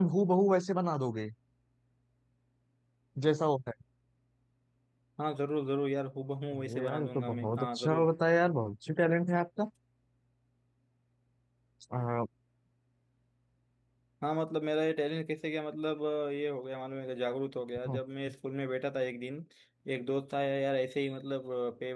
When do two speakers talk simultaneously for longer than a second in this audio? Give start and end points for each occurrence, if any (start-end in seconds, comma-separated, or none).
6.5-8.1